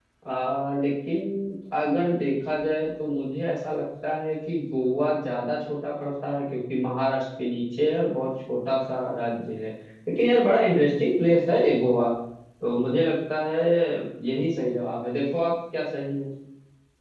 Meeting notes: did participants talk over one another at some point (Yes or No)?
No